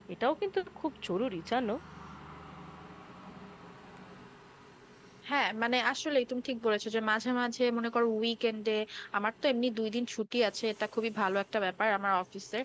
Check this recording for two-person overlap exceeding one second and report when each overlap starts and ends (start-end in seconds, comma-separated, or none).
none